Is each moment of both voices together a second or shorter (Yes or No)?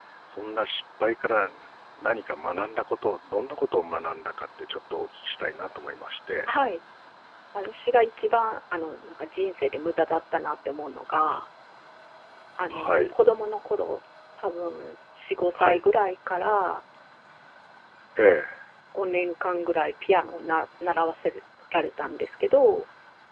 Yes